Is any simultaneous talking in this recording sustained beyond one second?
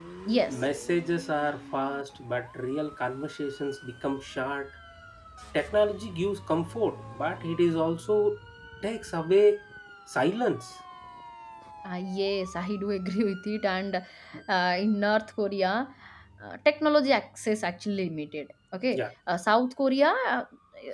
No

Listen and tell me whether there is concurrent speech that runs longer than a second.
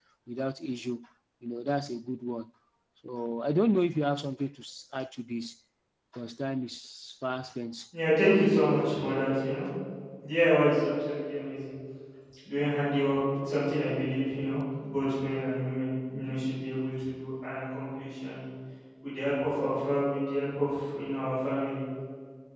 No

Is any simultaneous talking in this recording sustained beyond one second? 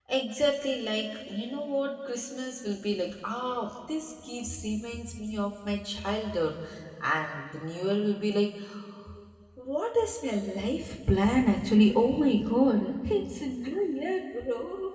No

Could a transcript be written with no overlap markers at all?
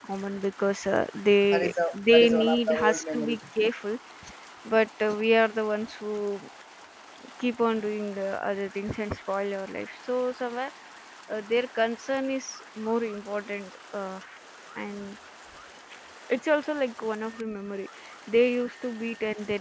No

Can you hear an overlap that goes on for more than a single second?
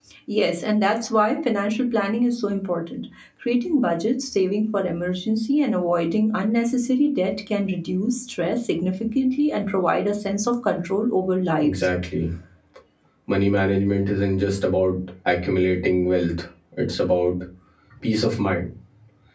No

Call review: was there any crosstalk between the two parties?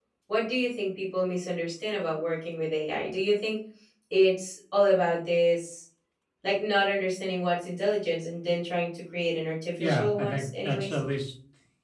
Yes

